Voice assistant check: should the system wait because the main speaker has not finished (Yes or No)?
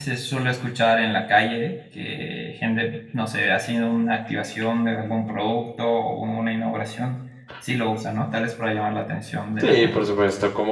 No